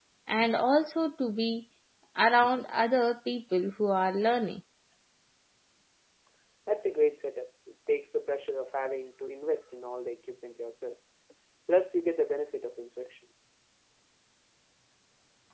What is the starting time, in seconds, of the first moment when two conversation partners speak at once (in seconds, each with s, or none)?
none